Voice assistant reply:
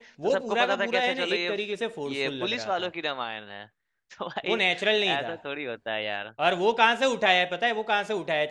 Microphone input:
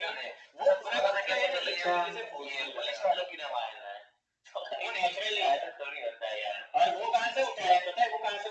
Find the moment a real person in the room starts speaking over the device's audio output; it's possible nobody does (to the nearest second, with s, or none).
2 s